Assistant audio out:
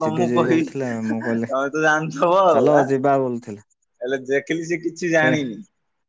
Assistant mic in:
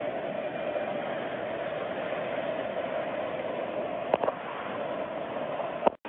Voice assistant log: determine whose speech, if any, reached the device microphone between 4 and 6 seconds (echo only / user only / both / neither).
neither